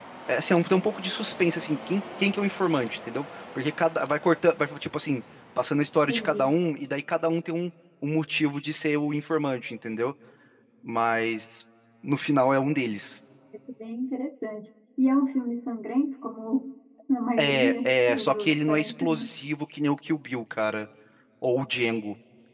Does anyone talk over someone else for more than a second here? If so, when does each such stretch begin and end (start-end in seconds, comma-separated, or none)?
17.4-19.3